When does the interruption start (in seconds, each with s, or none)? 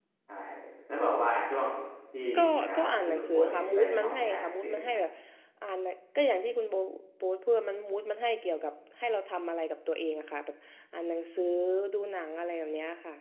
2.6 s